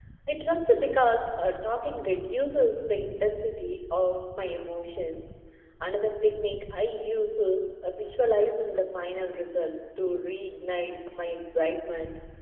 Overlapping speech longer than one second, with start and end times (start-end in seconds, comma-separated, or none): none